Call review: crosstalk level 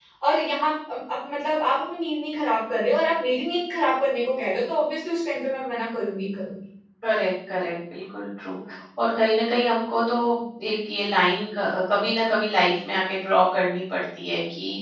none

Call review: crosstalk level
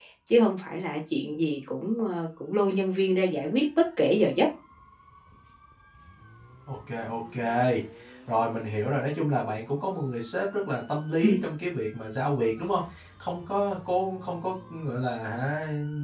none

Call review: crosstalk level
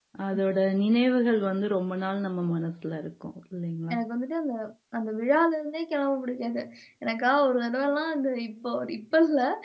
none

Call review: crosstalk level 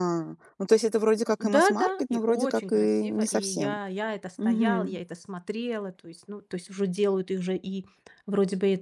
present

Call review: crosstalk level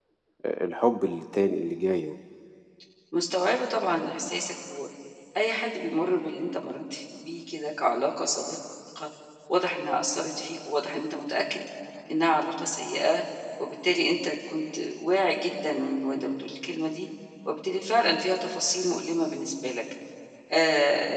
none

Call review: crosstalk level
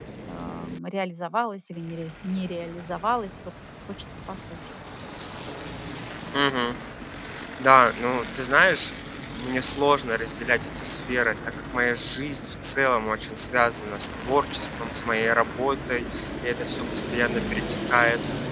none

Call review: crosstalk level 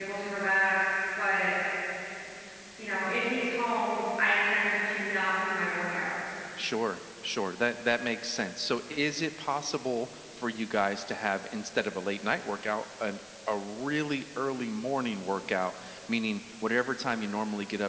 none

